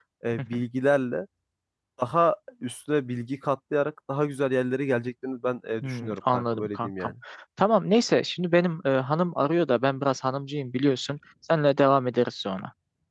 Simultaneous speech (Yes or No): Yes